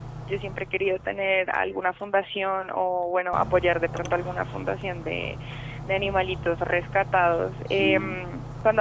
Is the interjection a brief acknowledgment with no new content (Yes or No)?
Yes